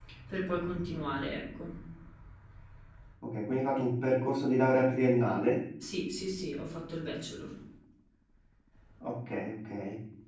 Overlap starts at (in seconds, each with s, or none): none